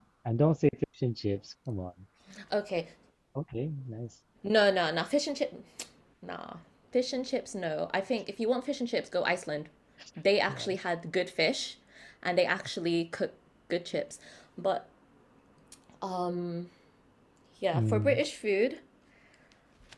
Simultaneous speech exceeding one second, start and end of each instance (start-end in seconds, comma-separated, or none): none